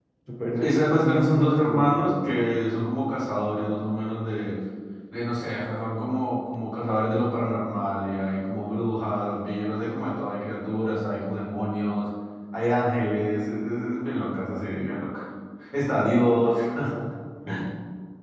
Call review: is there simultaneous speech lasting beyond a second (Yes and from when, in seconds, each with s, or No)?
Yes, from 0.6 s